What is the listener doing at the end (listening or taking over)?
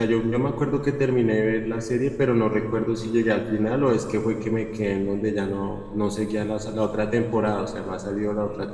taking over